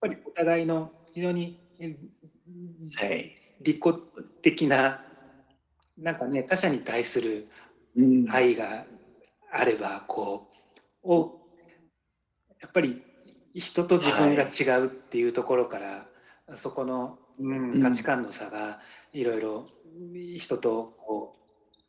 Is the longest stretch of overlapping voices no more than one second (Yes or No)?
Yes